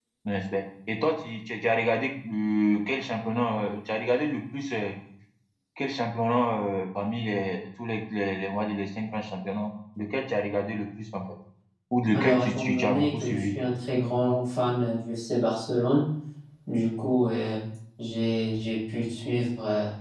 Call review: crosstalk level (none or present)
present